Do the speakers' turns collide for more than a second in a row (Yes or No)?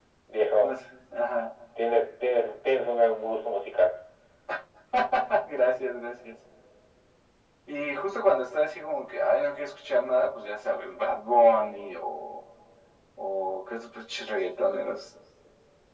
No